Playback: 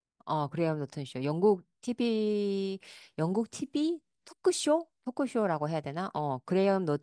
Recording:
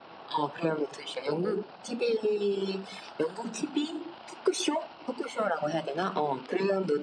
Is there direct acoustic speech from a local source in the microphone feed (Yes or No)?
No